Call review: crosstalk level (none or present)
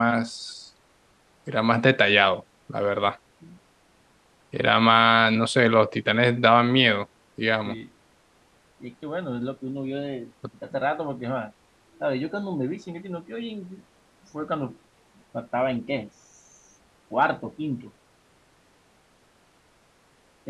none